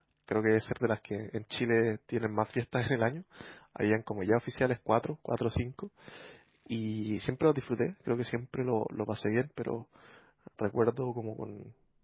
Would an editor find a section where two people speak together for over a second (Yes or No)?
No